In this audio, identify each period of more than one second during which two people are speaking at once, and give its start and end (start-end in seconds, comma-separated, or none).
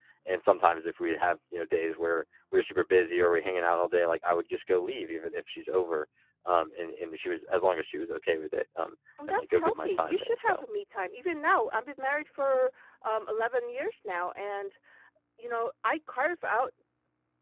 9.3-10.6